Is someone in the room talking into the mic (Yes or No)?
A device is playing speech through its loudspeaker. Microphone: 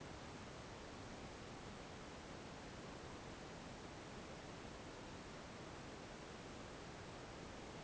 No